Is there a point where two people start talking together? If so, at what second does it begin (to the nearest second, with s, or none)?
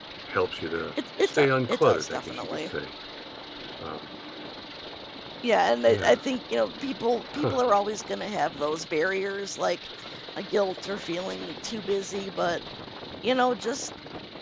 1 s